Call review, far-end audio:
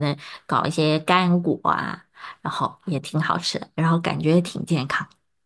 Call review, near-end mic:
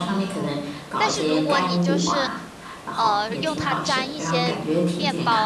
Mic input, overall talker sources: both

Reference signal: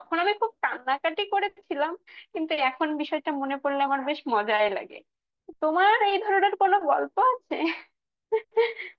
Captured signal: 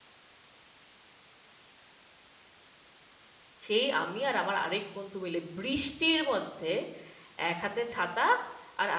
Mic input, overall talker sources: user only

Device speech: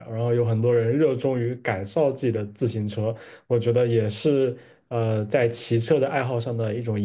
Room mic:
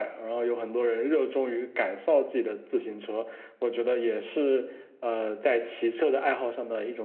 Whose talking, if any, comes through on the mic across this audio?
echo only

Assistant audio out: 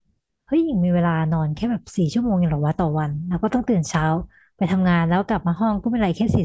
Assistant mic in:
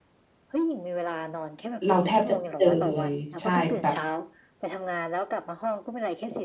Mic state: both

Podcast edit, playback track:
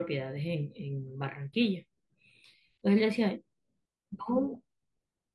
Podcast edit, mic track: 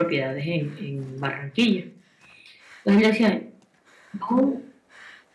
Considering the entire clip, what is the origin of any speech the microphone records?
echo only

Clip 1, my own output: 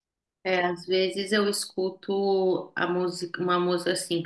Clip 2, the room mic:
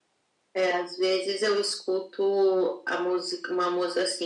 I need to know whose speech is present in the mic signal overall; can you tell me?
echo only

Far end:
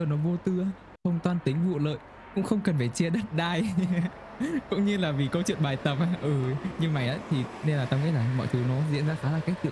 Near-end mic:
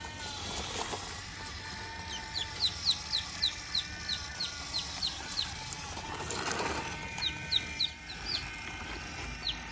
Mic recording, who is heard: neither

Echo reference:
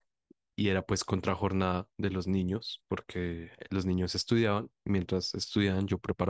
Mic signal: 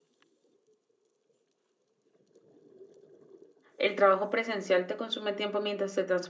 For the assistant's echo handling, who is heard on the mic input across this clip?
user only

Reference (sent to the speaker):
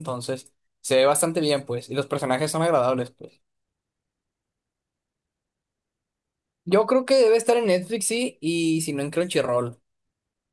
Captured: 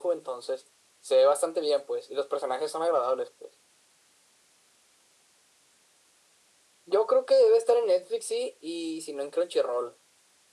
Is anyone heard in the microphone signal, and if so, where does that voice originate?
echo only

